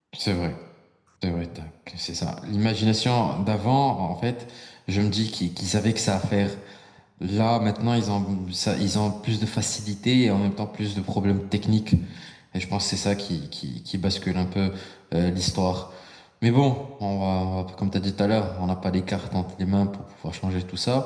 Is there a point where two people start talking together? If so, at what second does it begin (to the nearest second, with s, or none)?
none